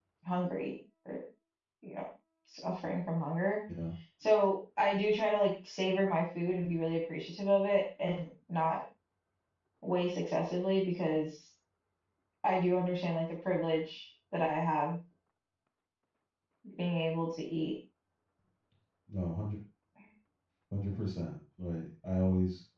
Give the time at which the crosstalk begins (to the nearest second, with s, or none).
none